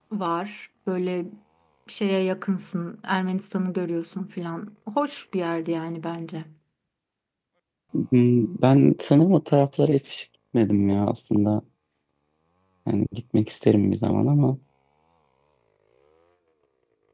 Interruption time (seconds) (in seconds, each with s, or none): none